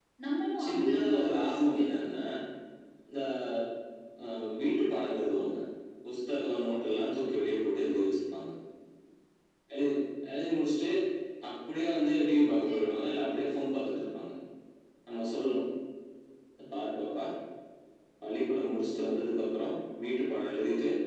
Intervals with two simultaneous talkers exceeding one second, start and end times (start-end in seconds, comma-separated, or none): 0.6-2.2